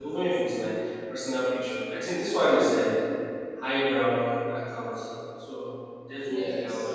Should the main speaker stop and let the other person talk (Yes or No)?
No